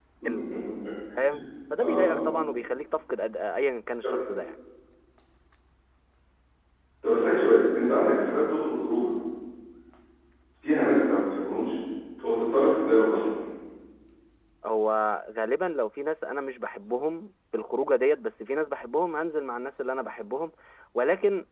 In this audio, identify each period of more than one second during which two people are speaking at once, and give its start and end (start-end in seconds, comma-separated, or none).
none